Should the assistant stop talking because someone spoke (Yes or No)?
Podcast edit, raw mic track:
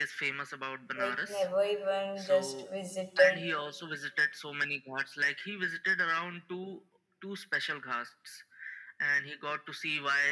Yes